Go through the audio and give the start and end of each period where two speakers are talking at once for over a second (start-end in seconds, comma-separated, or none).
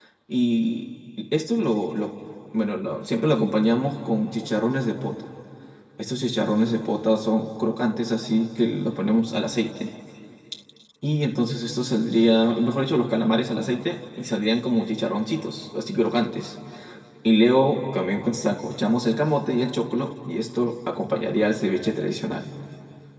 none